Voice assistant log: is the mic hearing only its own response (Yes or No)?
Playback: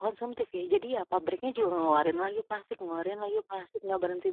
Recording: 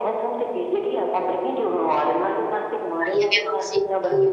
No